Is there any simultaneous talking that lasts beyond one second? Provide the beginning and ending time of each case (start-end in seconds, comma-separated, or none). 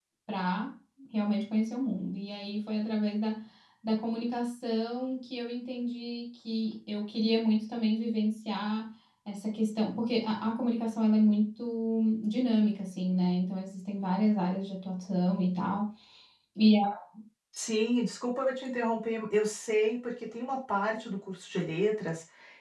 none